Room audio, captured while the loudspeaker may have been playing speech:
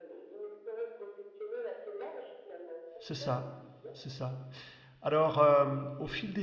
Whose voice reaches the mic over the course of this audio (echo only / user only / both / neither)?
both